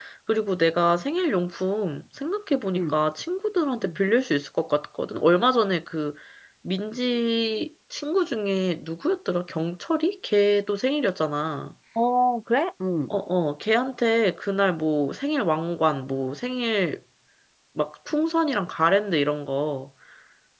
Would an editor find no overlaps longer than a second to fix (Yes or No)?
Yes